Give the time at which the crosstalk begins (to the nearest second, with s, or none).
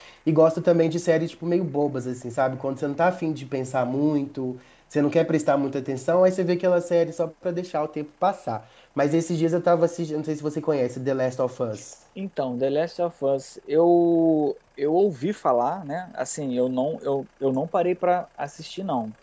none